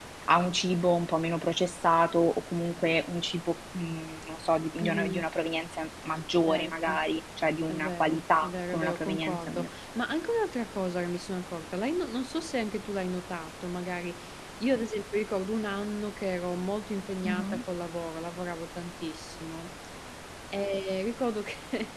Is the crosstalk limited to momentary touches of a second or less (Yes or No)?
No